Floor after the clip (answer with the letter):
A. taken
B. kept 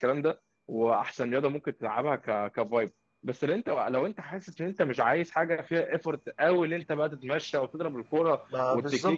A